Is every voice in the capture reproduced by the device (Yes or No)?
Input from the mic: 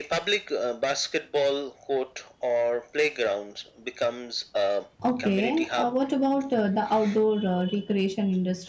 No